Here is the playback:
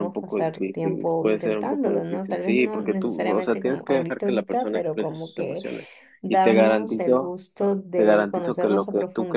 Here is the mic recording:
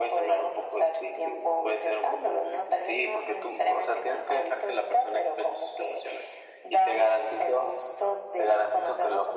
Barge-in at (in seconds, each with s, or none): none